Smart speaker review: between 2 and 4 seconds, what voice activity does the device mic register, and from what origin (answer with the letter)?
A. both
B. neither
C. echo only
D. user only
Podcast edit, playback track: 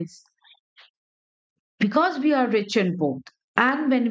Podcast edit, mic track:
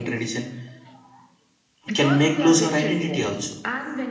A